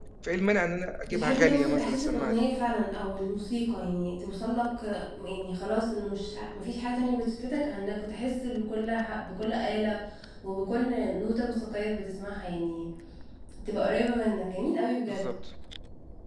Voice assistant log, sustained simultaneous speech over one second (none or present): present